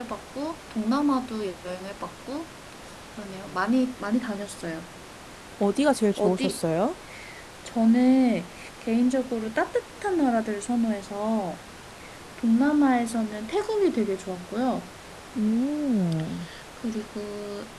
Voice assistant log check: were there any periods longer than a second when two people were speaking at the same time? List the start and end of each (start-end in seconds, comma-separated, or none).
none